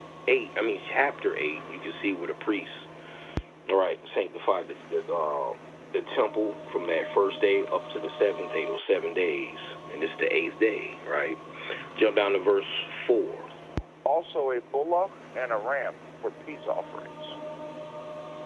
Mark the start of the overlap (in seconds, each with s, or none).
none